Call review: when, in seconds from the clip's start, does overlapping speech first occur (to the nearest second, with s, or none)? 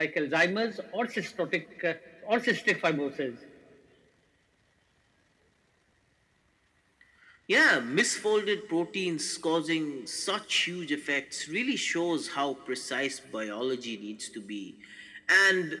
none